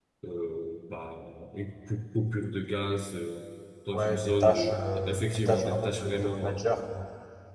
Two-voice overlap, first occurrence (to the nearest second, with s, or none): 4 s